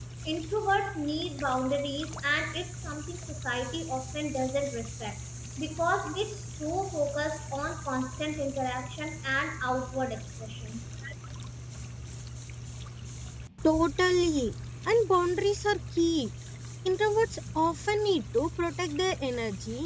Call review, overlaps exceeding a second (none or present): none